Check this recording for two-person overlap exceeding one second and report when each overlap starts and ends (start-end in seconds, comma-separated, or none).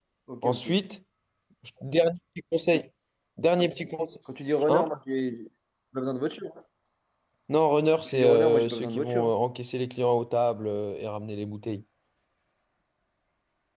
8.1-9.3